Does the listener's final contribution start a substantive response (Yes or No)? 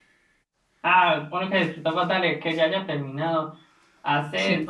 No